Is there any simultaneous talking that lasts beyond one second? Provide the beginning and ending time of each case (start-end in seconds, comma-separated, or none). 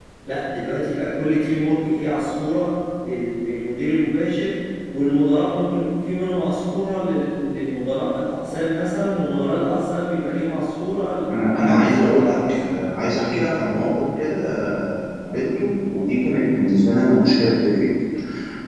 11.3-12.6